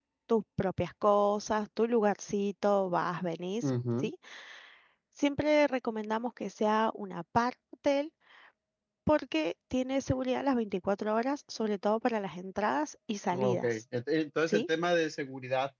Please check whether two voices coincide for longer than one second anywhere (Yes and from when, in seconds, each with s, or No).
No